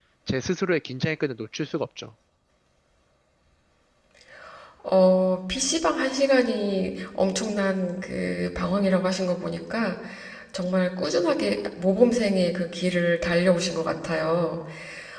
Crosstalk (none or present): none